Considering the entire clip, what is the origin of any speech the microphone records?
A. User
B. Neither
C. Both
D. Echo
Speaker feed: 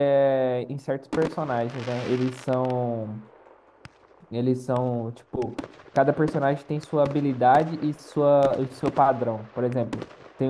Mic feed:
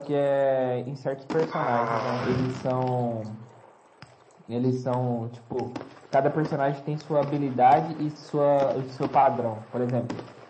C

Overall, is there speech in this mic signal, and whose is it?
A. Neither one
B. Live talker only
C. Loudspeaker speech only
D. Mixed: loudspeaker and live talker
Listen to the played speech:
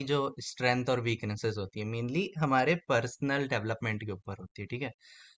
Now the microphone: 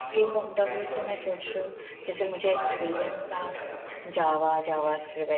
D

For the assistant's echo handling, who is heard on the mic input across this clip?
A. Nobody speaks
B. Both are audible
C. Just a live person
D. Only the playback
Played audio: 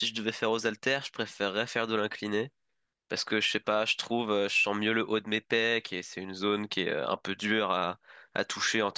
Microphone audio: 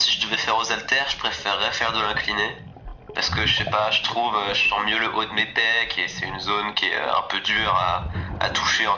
D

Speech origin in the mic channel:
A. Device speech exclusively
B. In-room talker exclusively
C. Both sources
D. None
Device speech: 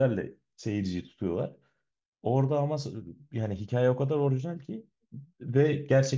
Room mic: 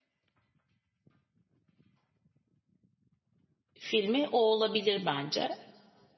B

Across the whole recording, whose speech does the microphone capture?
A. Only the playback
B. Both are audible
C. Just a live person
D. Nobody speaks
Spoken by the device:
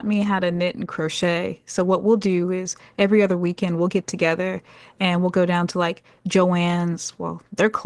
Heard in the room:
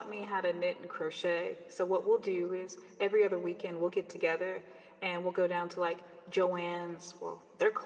A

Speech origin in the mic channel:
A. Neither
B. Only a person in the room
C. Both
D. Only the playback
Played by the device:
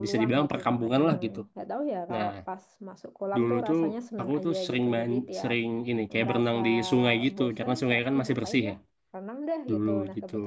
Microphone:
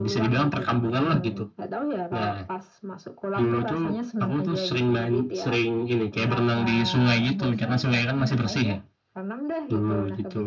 D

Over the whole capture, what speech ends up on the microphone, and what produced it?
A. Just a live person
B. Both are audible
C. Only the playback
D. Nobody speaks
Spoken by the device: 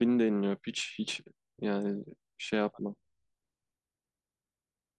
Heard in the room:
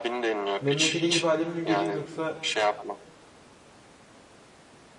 B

